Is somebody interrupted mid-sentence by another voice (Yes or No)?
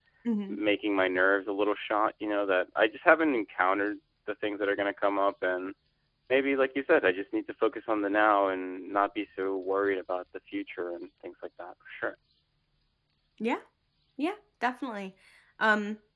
No